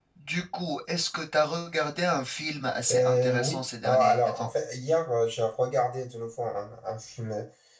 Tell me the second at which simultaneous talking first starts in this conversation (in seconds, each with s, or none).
2.9 s